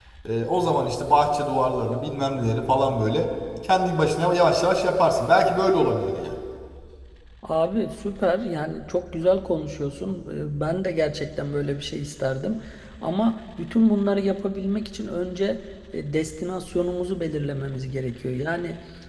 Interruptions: none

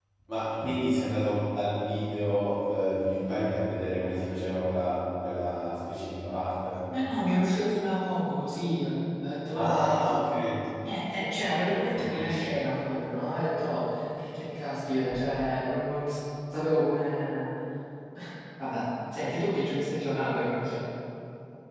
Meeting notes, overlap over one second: none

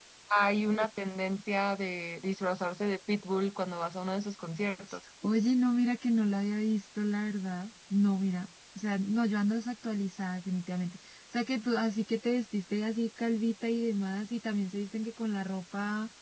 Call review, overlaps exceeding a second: none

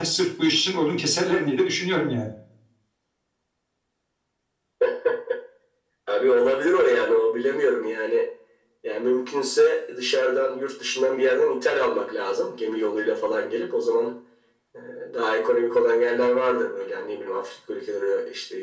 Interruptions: none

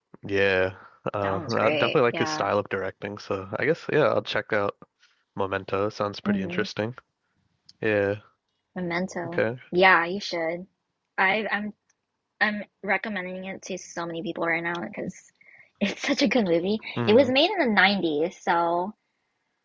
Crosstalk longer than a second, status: present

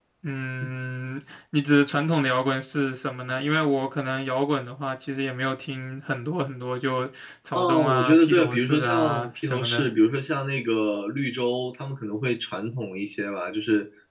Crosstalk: present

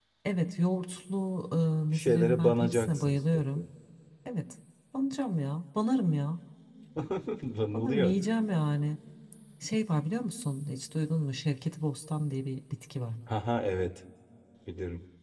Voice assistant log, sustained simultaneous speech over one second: present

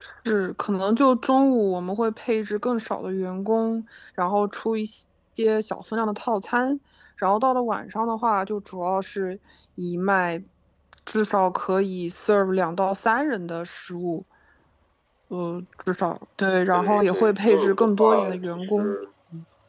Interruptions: present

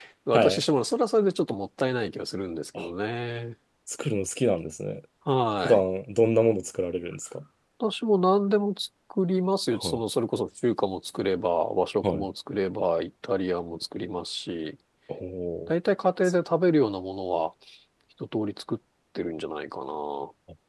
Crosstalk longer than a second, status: none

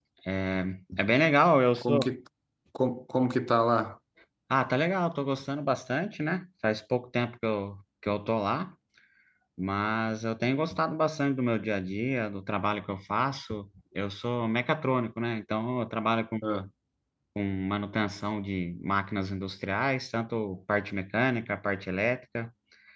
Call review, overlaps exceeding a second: none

